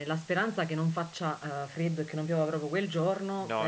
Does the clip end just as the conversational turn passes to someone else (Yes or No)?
No